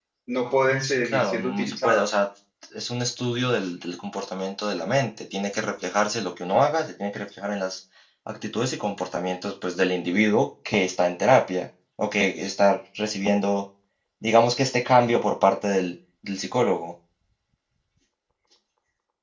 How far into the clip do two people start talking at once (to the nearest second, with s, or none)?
1 s